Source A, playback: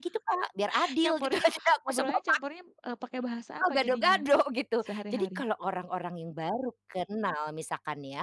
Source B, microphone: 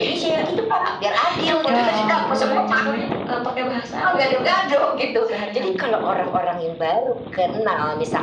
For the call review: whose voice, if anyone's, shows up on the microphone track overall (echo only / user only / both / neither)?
both